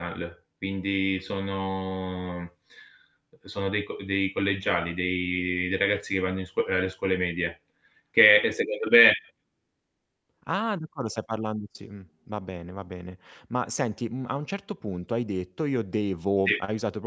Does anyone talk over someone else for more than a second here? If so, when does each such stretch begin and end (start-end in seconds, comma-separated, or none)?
none